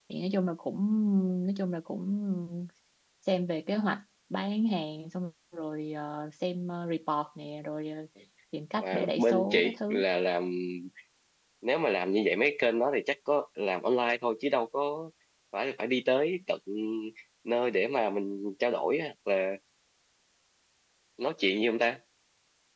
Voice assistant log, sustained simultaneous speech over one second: present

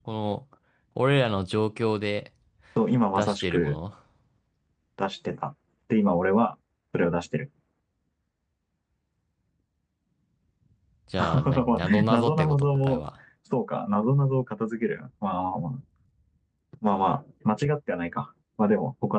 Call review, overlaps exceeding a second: present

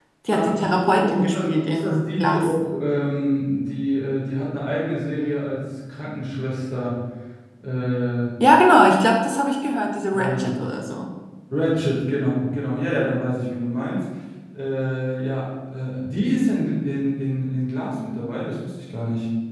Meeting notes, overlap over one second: present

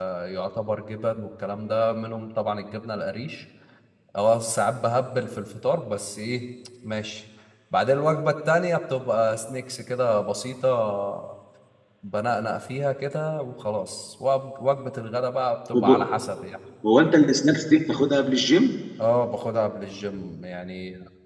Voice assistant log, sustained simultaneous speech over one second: none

